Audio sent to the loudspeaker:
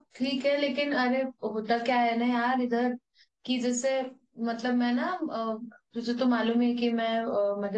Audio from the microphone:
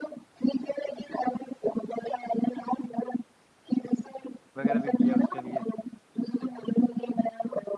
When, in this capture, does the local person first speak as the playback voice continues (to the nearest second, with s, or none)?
5 s